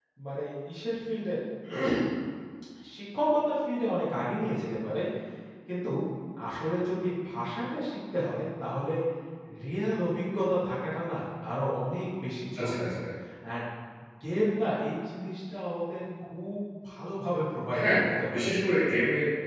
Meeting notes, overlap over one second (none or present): none